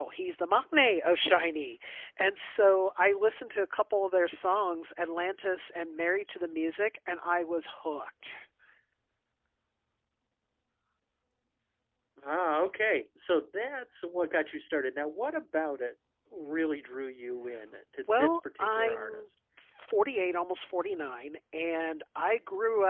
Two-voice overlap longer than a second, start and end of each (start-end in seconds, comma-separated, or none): 18.1-19.3